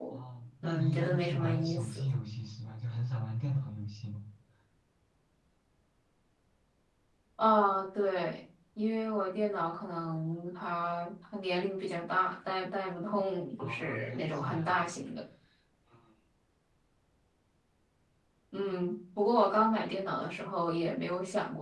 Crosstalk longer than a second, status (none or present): present